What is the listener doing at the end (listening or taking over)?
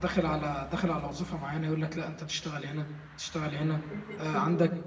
listening